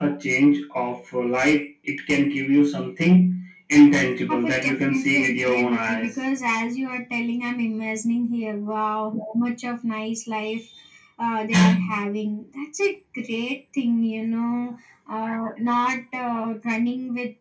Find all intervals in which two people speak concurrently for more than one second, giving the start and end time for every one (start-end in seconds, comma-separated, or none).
4.3-6.2